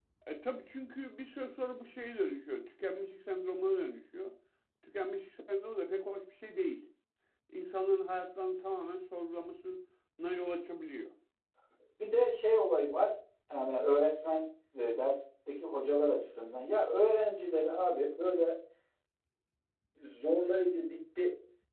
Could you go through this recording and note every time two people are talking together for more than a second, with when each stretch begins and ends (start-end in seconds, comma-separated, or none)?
none